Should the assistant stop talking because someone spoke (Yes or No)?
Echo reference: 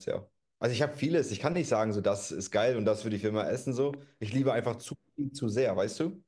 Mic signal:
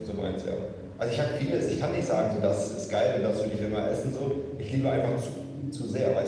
No